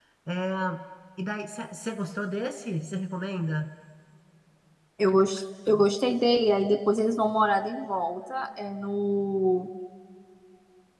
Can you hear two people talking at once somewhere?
No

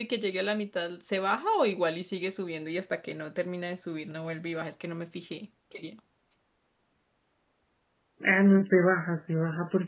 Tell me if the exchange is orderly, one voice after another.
Yes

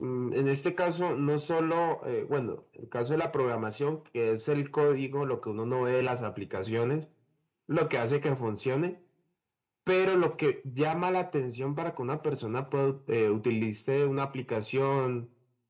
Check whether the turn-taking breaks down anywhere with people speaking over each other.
No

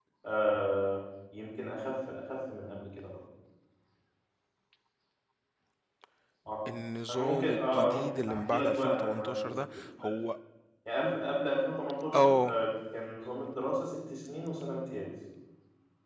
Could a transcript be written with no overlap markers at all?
No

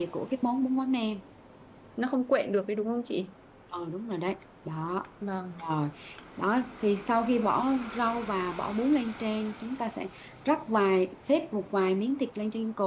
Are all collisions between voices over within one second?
Yes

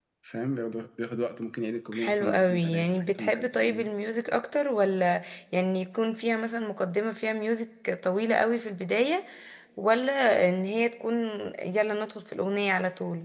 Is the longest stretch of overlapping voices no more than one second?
No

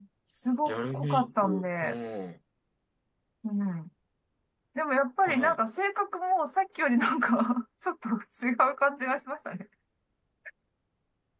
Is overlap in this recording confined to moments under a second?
No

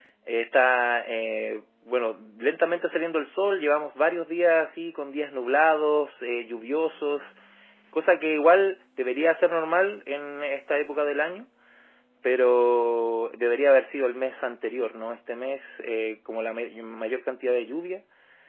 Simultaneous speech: No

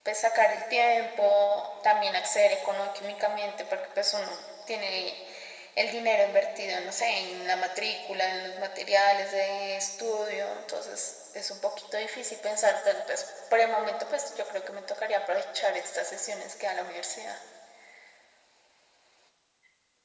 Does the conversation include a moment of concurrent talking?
No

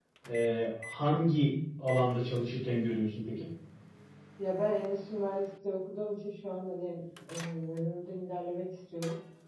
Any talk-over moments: No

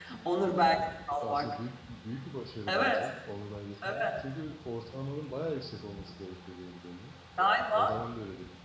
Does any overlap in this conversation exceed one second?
No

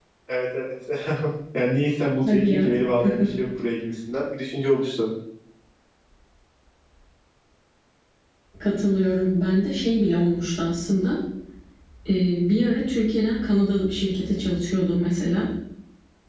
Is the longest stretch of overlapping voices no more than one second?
Yes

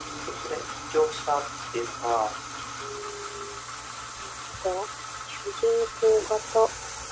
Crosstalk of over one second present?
No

